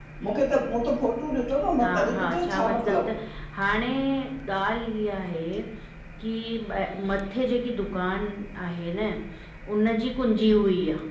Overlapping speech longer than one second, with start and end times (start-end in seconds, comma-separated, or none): 1.8-3.1